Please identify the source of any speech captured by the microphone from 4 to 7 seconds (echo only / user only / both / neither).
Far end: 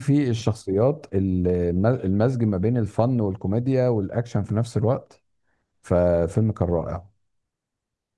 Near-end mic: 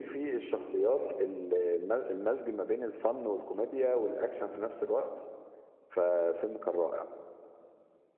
echo only